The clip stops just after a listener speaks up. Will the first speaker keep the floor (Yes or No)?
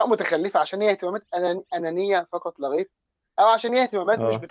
Yes